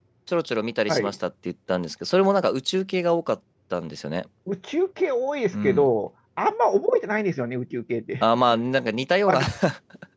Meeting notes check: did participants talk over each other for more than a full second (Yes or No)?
No